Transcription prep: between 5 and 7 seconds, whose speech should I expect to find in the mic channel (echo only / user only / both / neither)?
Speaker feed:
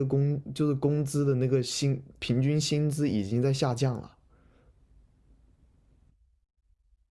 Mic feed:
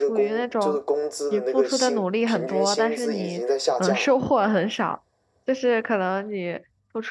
user only